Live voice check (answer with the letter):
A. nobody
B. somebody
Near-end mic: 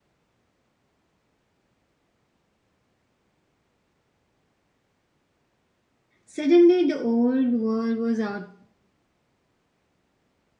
B